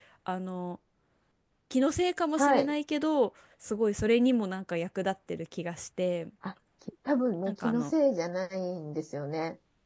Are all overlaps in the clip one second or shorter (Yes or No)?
Yes